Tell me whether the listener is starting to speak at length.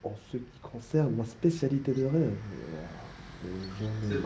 Yes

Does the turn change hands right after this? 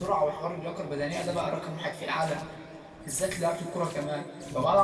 No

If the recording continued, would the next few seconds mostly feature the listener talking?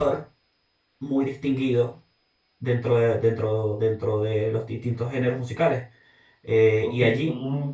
Yes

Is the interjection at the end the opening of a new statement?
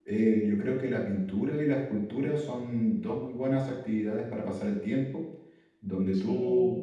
No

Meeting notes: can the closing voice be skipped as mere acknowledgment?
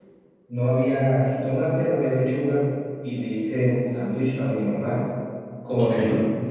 Yes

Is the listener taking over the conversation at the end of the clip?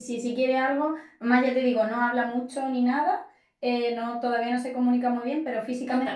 No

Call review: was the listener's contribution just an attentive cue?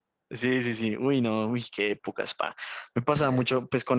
Yes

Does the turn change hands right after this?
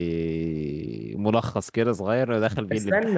Yes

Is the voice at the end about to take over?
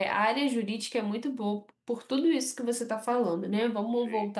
No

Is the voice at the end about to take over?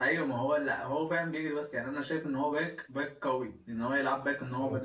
No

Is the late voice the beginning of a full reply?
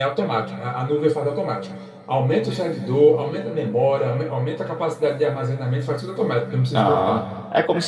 Yes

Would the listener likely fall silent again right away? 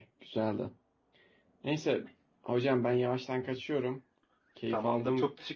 No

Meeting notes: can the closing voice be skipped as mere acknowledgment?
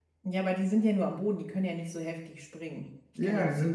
No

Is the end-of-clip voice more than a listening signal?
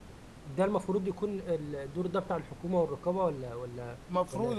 Yes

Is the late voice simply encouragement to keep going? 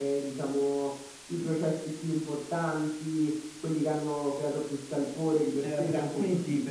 No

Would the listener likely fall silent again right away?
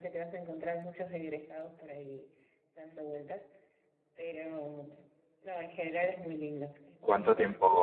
No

